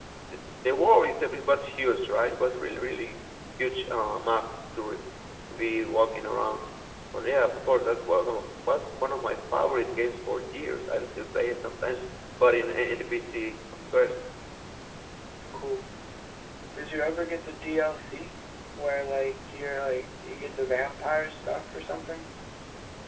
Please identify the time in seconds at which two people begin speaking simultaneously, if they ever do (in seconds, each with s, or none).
none